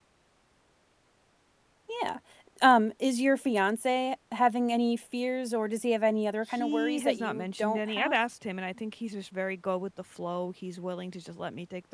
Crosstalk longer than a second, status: present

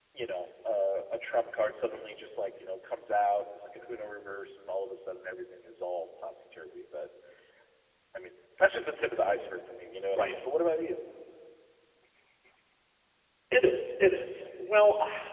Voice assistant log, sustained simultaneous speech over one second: none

